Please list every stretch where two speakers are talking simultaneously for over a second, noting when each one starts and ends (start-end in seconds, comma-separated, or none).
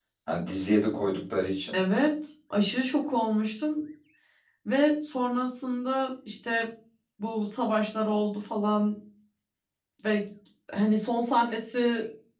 none